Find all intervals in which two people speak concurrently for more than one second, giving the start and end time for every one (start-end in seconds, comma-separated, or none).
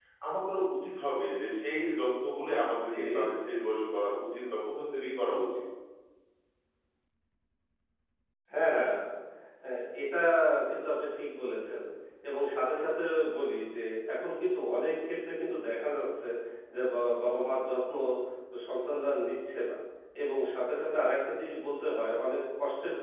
none